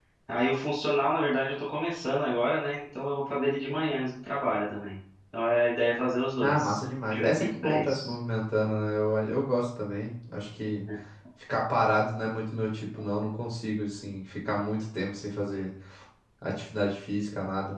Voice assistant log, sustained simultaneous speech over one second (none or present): present